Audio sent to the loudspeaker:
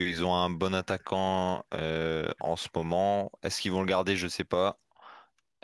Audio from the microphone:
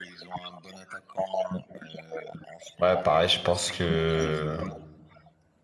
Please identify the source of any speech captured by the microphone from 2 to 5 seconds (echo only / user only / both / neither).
both